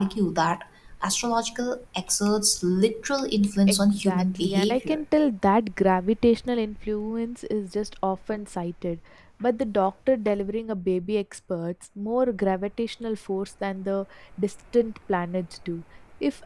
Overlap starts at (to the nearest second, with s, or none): 4 s